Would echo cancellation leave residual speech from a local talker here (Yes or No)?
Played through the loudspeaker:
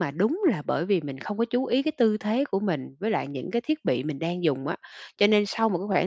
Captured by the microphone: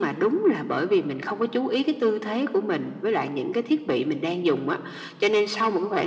No